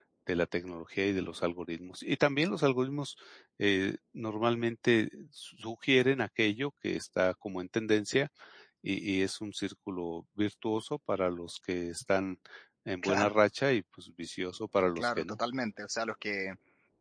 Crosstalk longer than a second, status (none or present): none